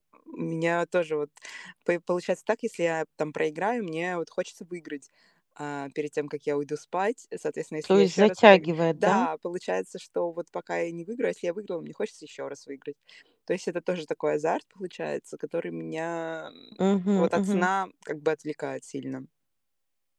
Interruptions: present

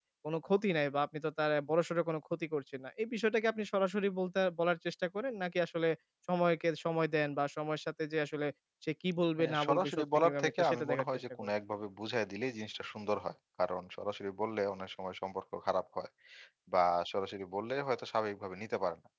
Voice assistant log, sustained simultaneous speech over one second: present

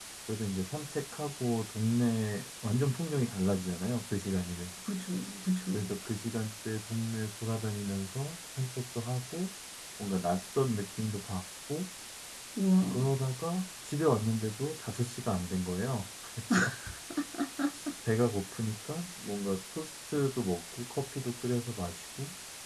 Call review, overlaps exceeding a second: none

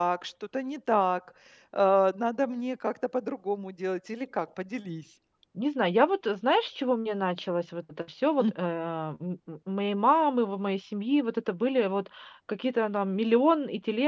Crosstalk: none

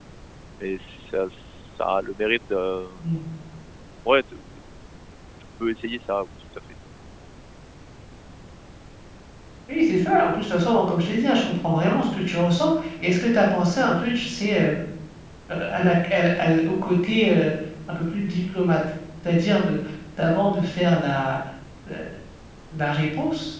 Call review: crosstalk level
none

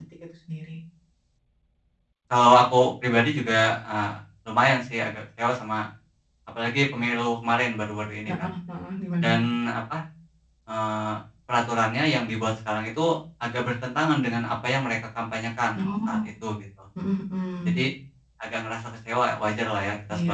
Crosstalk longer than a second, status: none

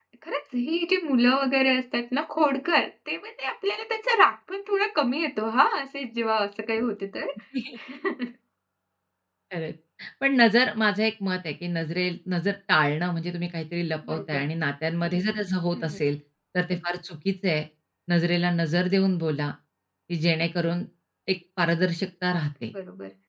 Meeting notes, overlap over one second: none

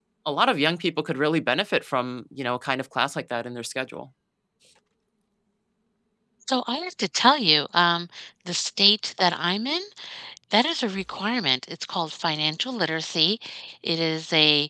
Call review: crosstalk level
none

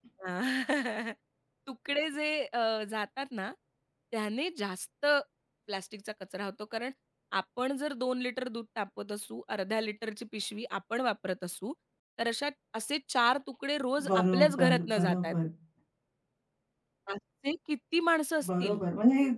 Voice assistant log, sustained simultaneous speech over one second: present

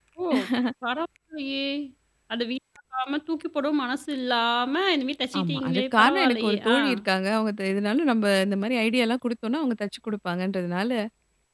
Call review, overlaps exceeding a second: present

